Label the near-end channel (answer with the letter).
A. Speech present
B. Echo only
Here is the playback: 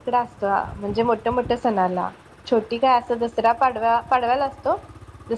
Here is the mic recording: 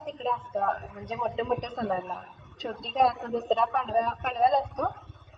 B